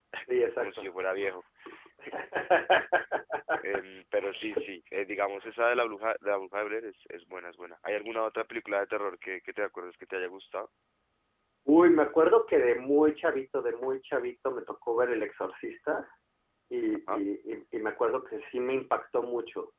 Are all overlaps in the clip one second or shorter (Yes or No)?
Yes